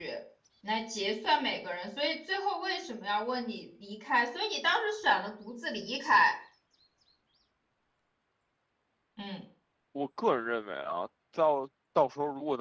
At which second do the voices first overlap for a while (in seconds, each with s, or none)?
none